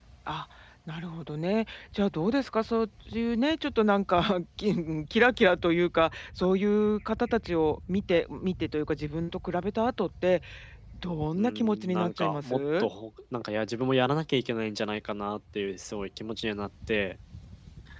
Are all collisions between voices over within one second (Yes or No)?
No